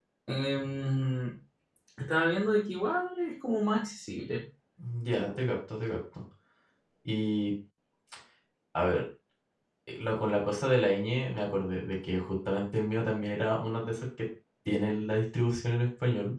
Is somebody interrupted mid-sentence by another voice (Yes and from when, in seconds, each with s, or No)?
No